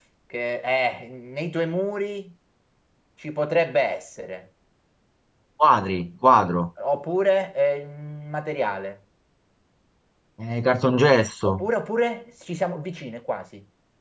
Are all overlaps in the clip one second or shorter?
Yes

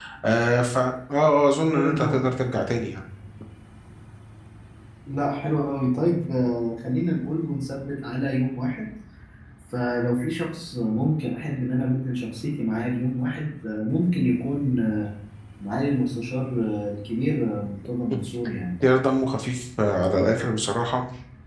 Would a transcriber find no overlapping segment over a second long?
Yes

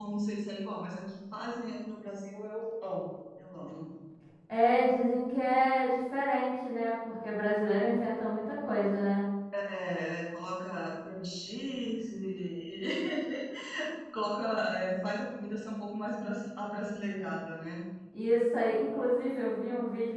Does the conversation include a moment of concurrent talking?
No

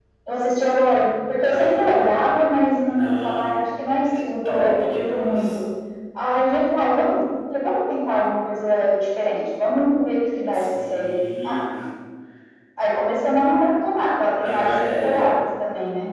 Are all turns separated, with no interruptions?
No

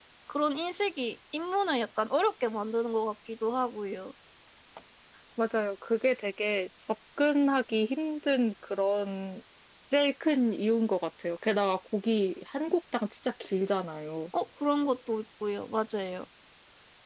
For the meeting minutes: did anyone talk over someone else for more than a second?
No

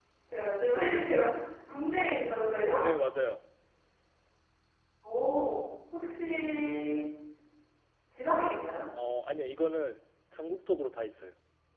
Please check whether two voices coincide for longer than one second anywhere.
No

